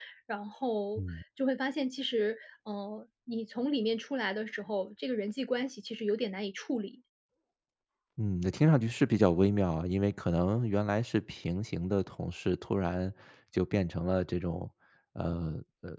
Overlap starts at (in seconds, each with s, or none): none